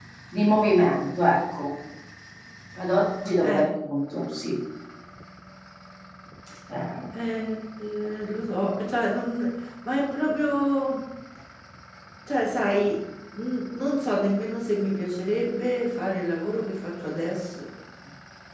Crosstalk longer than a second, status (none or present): none